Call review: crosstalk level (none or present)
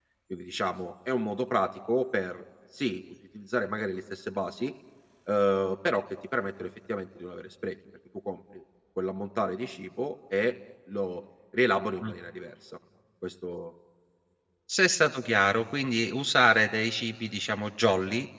none